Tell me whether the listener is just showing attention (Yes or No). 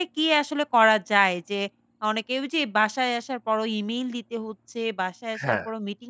Yes